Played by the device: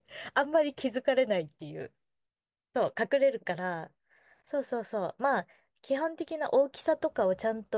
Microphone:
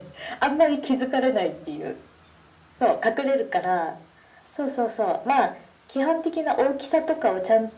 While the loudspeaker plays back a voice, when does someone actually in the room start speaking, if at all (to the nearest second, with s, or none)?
none